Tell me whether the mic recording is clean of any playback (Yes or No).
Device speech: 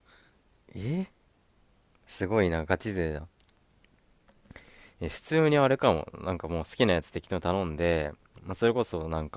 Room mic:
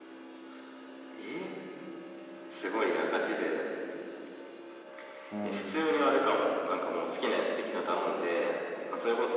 No